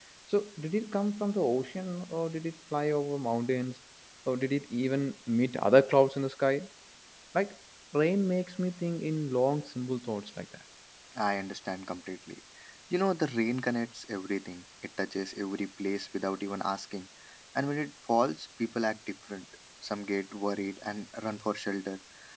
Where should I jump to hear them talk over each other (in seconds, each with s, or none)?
none